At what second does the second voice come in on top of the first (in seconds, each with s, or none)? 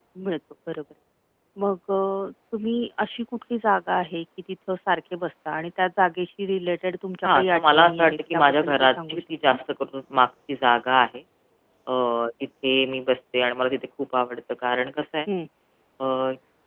7.2 s